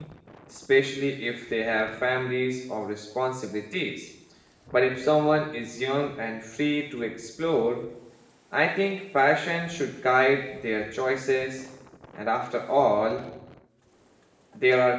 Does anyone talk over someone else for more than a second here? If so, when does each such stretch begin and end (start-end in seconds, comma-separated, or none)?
none